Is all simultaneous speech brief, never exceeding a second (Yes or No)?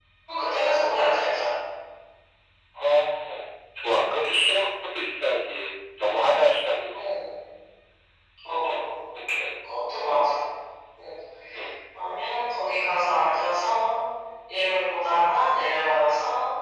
Yes